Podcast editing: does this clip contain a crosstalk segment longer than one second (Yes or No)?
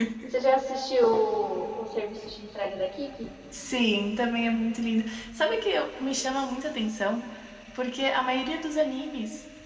No